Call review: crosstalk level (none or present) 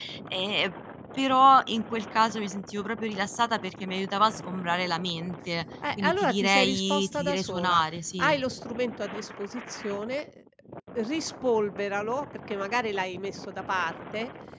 present